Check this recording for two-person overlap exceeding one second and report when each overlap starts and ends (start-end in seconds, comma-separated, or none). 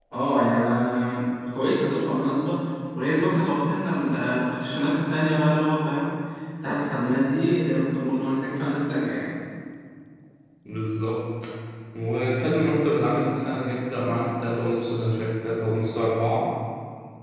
none